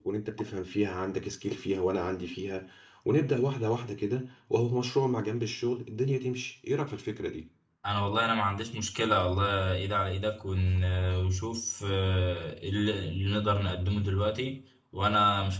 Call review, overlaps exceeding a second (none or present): none